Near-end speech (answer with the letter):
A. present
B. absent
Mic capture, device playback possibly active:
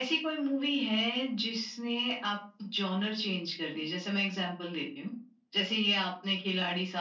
B